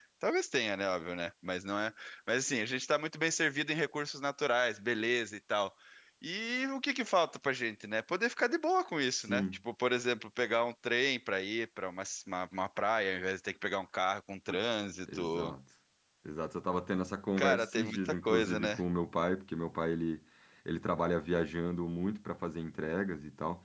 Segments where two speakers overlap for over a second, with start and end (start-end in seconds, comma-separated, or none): 17.4-18.8